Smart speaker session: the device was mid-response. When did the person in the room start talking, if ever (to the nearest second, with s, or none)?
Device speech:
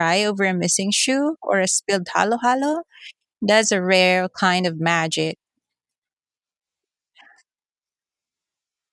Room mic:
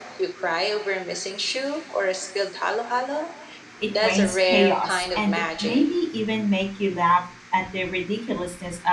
4 s